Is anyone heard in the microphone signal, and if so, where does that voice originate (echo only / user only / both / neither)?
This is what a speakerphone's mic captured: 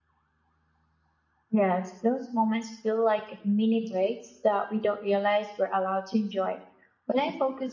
user only